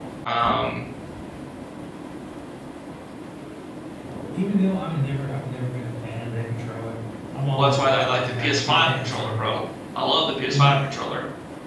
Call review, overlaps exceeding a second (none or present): present